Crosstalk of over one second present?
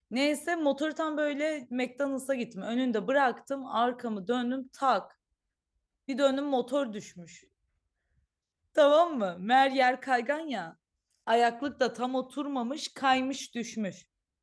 No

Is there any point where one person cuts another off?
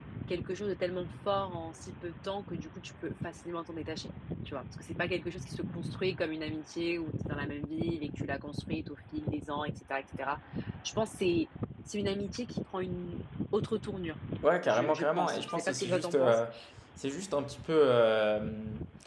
Yes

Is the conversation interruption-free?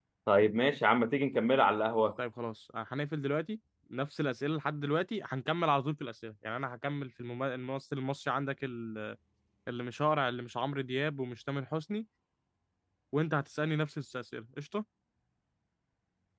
Yes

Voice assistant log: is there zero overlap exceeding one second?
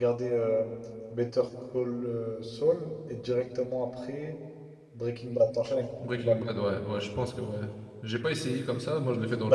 Yes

